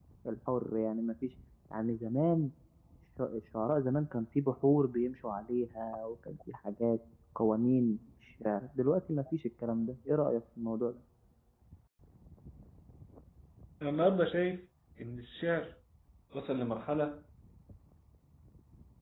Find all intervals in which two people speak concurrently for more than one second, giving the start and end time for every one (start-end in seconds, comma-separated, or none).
none